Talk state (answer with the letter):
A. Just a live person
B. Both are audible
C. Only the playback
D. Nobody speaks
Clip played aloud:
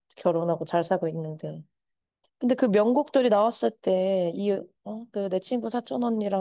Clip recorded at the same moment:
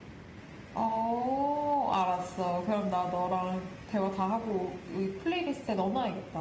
A